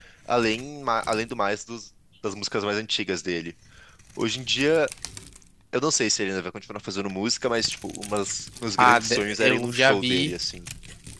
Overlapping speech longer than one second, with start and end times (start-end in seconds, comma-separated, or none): 8.8-10.3